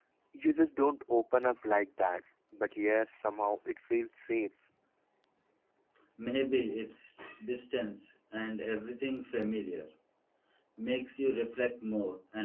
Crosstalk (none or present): none